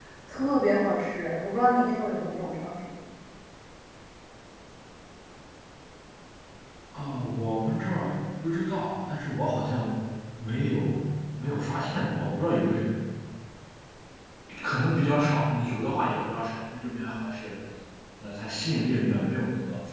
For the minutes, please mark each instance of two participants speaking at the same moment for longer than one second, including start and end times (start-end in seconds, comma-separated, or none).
none